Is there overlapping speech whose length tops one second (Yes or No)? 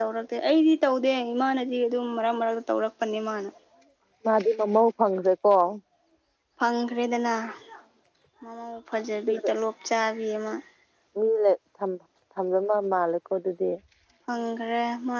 No